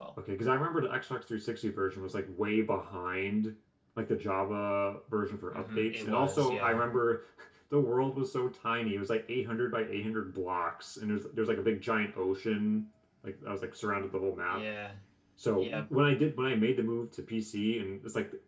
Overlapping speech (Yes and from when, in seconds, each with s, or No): Yes, from 5.5 s